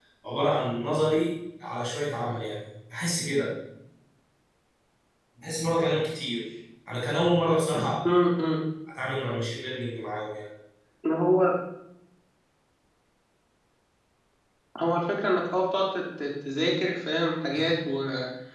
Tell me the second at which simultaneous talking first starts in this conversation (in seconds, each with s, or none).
none